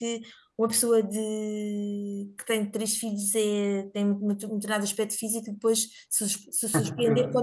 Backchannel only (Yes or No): Yes